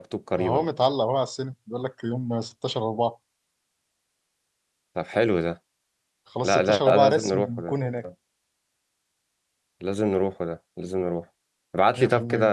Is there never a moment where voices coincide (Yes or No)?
No